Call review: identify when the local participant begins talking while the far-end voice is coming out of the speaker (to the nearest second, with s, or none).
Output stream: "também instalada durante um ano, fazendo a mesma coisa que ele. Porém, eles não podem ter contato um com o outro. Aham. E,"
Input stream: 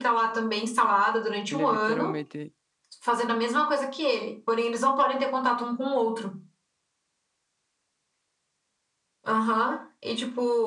2 s